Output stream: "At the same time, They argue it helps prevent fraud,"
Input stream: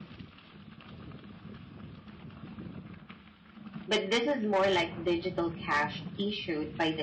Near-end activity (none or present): present